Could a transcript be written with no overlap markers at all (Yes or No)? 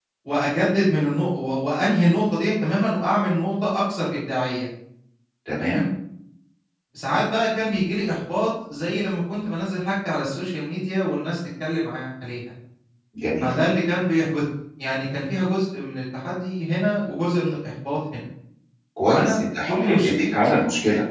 No